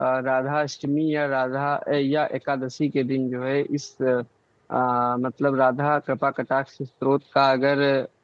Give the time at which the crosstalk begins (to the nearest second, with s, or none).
none